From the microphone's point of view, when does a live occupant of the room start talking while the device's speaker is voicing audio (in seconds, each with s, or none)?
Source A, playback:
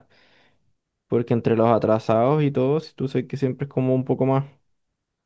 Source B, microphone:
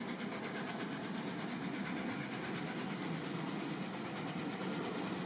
none